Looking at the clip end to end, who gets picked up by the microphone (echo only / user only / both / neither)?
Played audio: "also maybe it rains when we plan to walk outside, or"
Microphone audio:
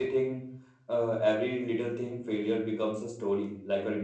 user only